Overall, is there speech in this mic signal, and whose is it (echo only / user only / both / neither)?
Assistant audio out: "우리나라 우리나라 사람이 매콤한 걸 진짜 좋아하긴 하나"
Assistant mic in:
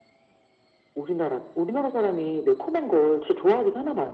echo only